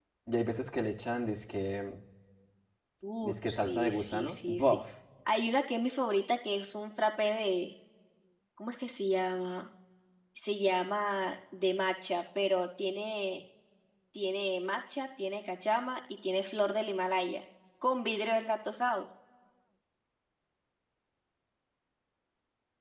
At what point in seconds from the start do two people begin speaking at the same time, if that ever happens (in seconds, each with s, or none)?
3.2 s